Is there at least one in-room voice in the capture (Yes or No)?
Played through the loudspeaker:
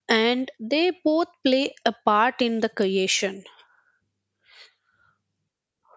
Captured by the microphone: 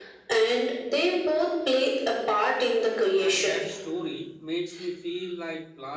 Yes